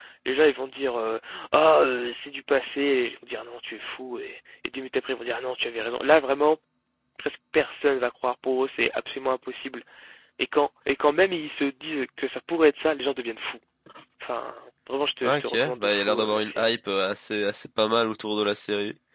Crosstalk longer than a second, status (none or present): present